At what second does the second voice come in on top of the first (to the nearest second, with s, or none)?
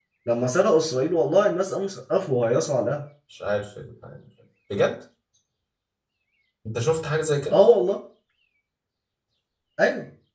none